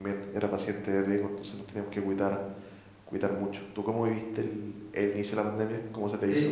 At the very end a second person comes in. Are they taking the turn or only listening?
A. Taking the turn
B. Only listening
A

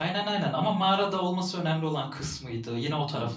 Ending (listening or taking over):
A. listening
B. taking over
B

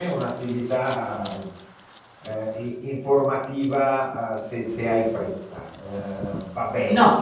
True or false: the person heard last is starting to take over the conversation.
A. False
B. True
A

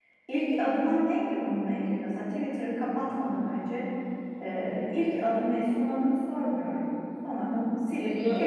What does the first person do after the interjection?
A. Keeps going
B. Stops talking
A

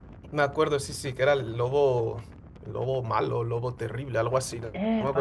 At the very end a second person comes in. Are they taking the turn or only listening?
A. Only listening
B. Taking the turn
B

